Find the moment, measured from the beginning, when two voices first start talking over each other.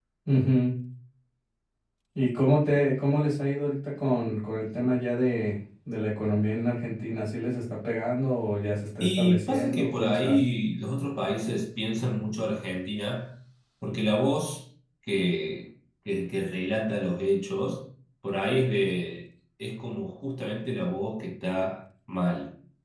9.0 s

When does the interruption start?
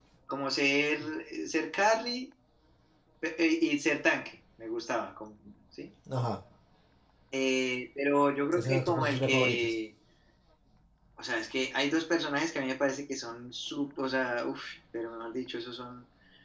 8.5 s

